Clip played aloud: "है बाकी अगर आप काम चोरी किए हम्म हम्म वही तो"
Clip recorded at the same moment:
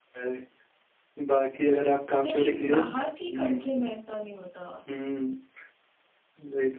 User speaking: Yes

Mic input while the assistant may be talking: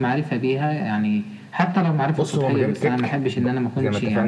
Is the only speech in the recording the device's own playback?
No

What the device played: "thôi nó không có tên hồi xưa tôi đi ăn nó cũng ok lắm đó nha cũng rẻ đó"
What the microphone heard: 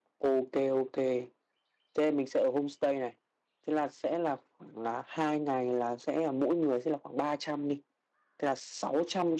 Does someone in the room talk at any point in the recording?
Yes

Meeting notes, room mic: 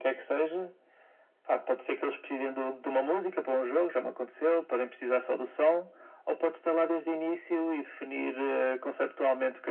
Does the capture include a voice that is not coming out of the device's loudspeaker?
No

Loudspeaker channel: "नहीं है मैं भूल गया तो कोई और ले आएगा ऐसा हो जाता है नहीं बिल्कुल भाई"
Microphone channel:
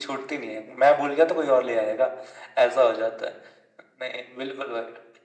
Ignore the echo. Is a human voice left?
No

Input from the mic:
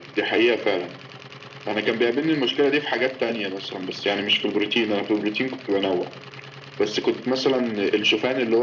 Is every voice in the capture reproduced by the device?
Yes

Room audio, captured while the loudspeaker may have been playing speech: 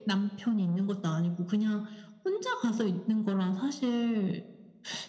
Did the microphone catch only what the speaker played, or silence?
Yes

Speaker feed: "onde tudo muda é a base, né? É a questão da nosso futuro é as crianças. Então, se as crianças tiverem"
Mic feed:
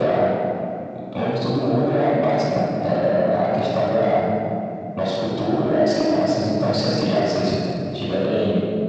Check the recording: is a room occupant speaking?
No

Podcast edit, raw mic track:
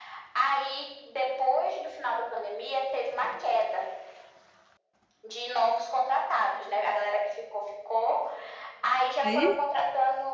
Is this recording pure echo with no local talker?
No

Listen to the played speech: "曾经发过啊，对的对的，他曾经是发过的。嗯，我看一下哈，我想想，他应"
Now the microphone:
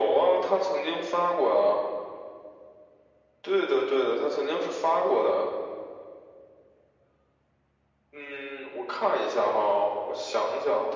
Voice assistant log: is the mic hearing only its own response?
Yes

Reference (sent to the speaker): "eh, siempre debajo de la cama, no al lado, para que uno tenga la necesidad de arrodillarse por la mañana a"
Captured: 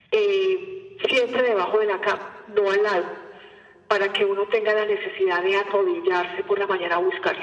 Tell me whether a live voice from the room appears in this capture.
No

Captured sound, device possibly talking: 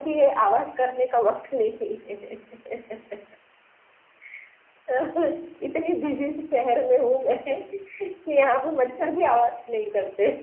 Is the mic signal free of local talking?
Yes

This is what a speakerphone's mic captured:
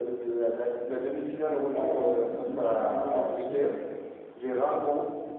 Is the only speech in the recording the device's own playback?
No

